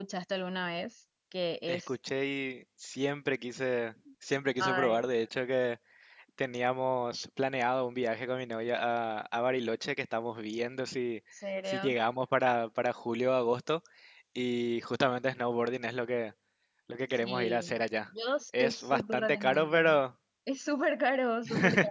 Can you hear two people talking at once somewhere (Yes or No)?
Yes